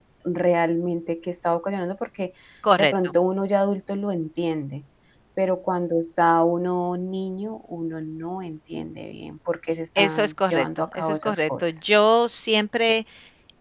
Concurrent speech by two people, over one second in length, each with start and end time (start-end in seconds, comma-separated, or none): 10.0-11.5